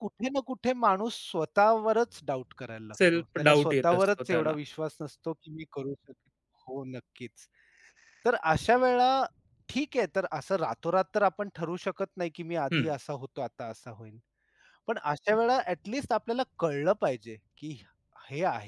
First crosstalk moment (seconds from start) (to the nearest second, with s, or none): 3 s